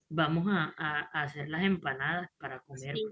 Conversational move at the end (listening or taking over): taking over